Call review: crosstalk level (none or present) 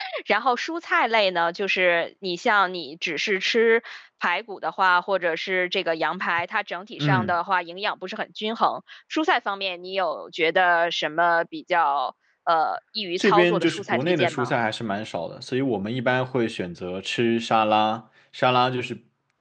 present